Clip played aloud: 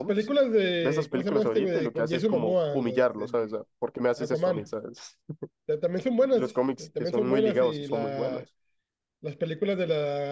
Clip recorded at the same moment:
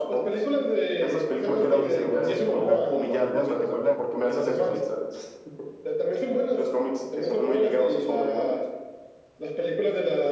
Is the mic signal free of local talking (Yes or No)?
No